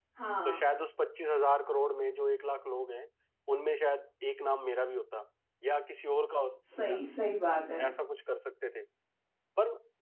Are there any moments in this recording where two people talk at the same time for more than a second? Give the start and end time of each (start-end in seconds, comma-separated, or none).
none